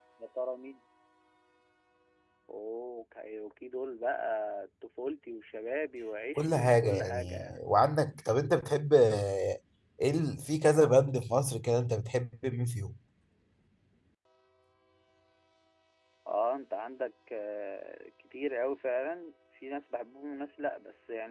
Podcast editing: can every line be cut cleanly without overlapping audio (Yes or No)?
No